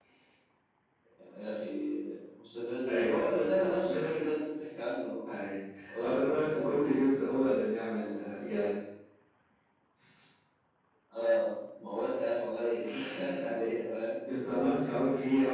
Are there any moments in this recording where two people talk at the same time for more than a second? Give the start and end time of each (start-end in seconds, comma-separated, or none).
6.0-7.6